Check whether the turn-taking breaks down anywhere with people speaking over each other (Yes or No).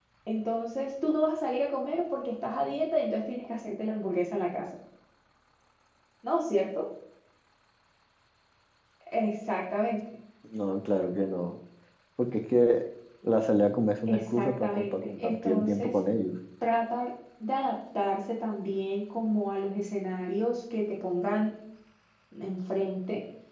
Yes